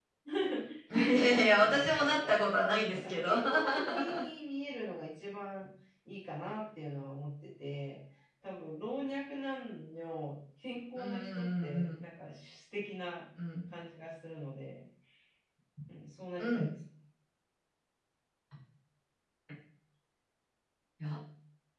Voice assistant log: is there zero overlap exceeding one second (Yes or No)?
No